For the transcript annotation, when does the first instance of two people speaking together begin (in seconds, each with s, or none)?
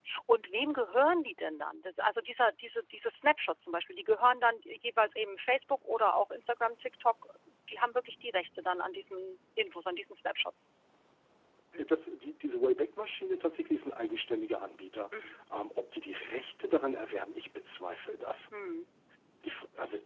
none